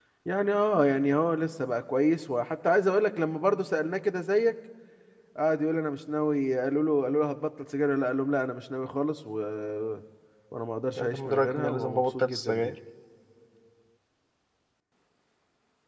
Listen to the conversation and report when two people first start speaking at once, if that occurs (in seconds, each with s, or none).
11.0 s